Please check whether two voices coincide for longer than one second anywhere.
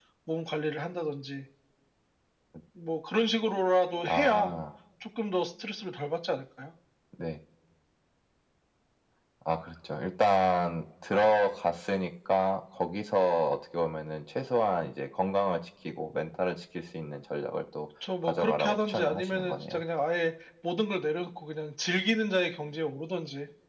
Yes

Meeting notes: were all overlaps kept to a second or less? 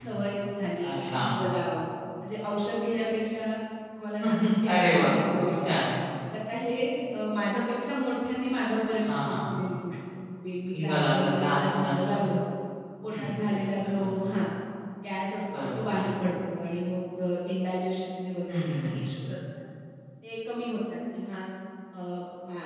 No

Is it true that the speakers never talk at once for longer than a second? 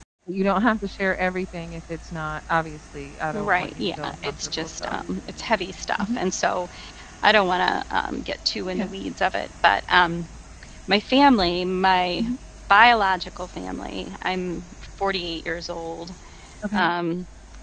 No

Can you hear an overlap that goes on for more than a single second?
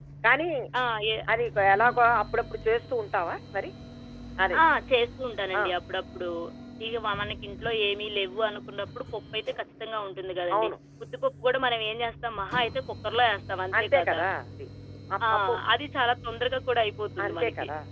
No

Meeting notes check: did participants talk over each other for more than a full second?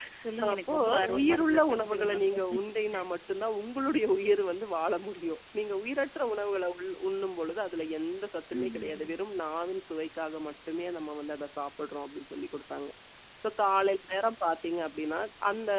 Yes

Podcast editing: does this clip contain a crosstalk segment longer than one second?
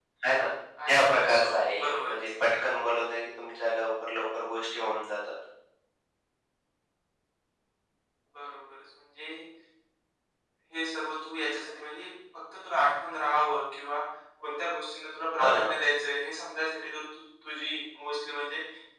Yes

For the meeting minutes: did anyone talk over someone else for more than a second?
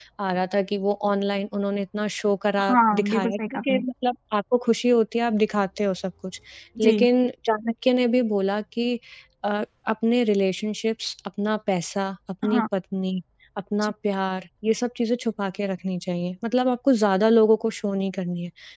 Yes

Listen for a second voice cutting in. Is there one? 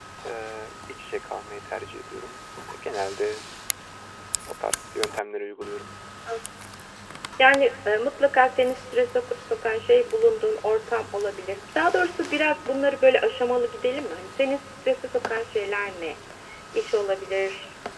No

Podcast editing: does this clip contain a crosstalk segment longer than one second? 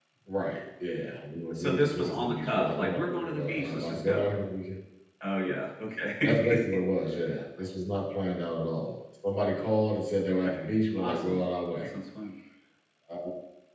Yes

